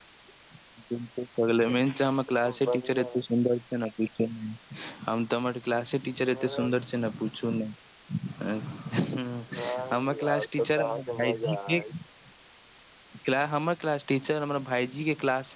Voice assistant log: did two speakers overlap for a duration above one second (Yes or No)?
Yes